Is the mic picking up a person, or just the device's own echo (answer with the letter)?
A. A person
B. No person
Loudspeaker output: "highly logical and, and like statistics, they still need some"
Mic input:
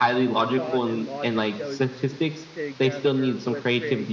A